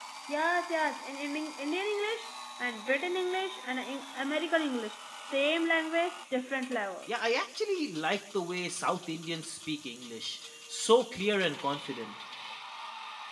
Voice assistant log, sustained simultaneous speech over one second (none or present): none